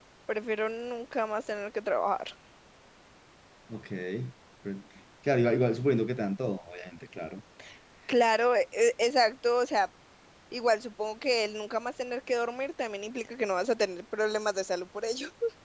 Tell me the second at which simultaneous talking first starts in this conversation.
none

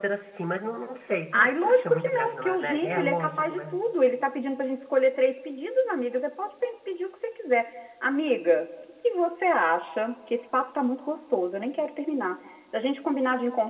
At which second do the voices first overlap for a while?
1 s

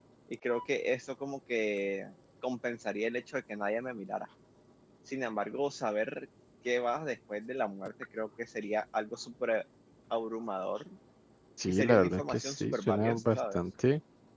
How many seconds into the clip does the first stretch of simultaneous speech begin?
12 s

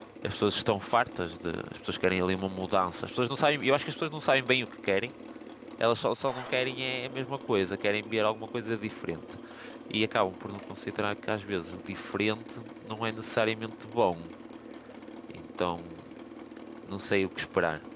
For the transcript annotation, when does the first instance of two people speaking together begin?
none

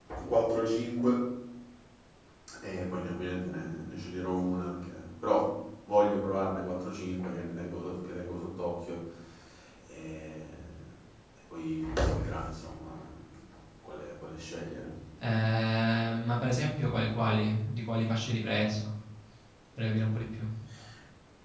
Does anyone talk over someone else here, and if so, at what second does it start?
none

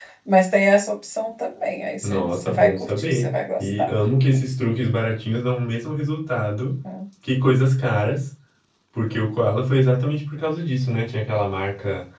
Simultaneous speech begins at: 2 s

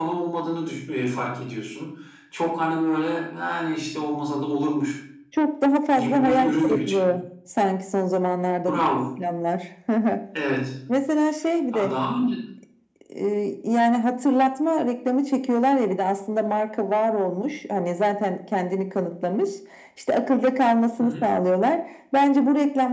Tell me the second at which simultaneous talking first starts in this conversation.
6 s

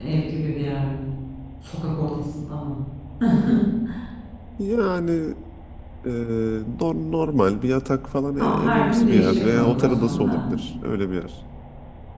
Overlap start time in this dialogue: 8 s

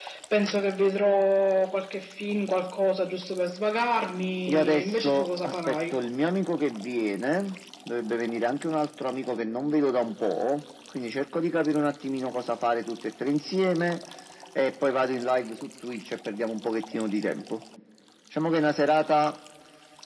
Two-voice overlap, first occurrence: 4 s

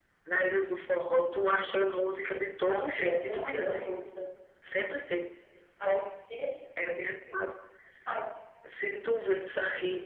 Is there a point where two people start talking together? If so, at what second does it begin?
3 s

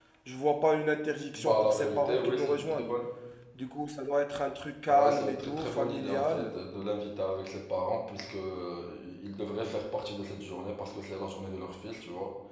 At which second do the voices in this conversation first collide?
1 s

